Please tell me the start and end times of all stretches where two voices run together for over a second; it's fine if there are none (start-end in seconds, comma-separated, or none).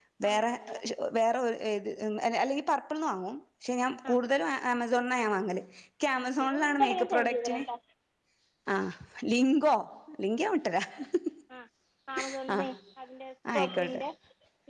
6.3-7.6